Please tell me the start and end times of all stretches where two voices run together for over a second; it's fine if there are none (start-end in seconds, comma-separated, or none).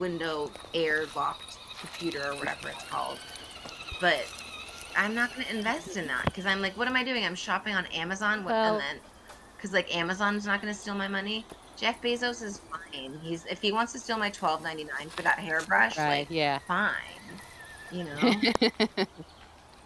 none